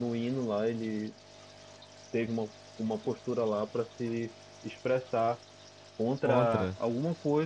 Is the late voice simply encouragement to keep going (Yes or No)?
Yes